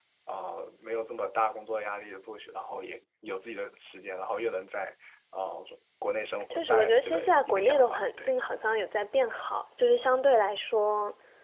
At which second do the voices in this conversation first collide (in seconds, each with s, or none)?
6.5 s